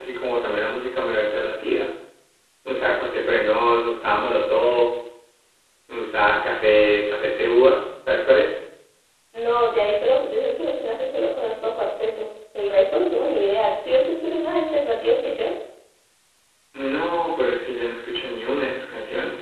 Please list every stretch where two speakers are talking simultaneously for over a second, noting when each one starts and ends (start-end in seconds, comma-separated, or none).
none